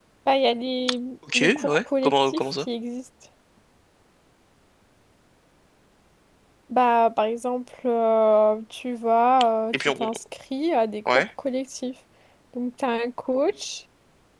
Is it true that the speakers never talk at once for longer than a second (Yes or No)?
No